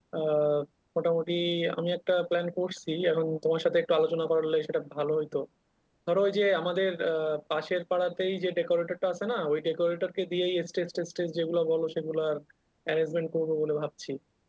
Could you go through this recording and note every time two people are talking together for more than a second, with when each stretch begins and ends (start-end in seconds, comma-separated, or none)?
none